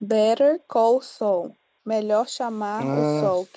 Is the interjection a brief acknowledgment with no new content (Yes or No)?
Yes